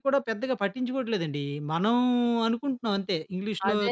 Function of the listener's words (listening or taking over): taking over